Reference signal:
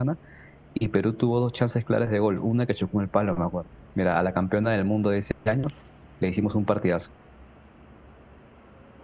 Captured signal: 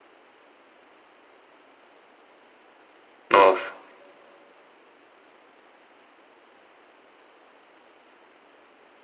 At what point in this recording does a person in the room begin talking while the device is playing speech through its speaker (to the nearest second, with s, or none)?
3 s